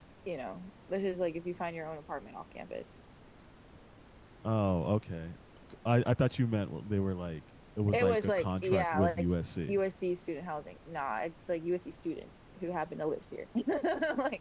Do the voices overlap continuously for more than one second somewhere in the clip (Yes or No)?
Yes